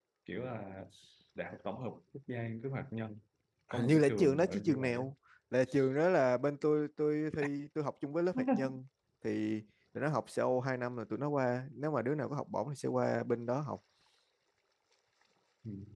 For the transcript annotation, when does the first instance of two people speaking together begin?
3.7 s

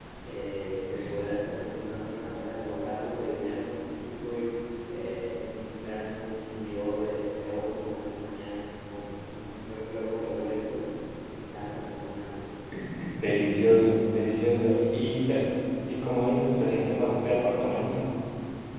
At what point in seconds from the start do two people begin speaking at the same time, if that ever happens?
none

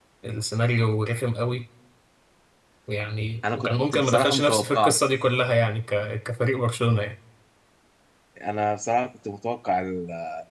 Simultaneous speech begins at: 3.5 s

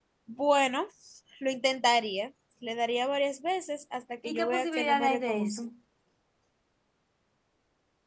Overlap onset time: 4.2 s

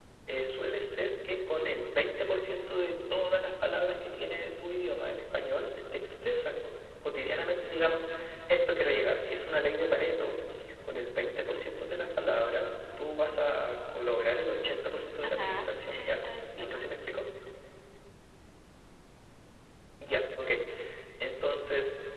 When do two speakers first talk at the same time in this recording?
15.2 s

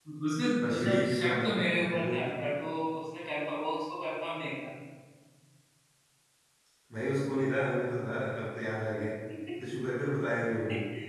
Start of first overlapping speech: 0.6 s

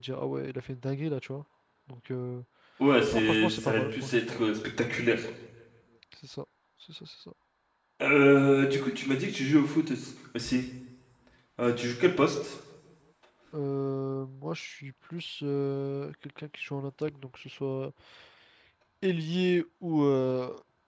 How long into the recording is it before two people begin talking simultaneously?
3.1 s

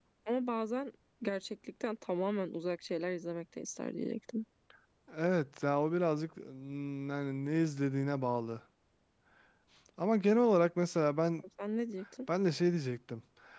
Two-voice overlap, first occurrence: none

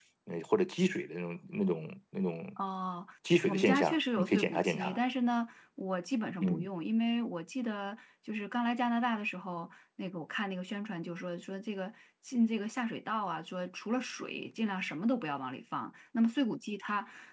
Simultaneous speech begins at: 3.4 s

